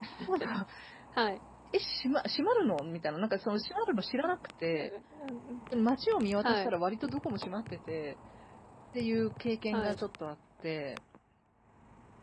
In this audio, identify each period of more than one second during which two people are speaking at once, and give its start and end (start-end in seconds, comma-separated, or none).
none